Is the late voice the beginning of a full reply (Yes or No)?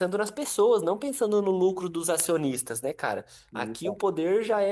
No